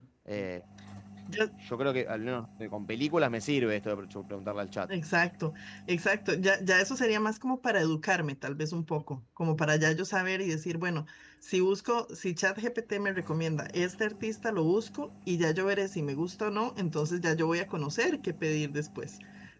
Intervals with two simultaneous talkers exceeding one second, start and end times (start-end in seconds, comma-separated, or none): none